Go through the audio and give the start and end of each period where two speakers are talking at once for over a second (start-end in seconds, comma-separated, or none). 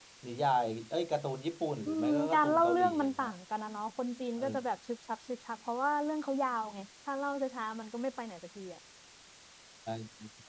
1.9-3.3